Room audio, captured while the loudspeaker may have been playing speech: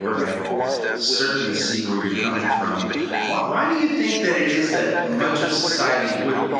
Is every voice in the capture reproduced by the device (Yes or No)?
No